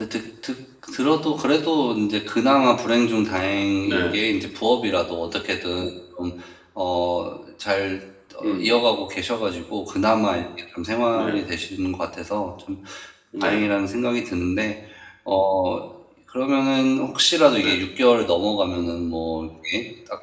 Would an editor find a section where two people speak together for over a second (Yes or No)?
No